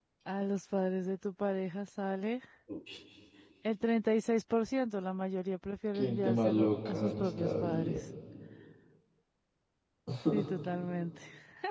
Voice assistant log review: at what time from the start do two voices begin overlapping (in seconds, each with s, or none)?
5.9 s